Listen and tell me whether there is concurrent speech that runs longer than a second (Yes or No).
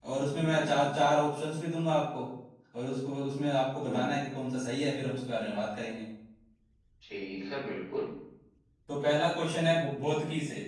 No